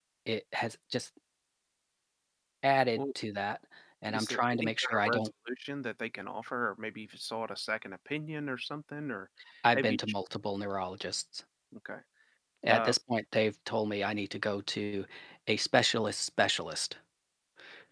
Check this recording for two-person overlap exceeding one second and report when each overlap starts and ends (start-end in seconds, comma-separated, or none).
4.1-5.3